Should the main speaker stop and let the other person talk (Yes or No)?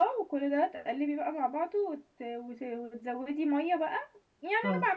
No